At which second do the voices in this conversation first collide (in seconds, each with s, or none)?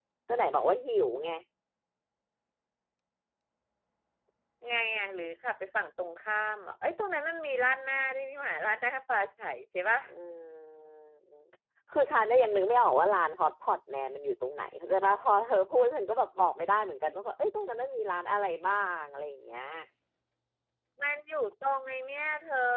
none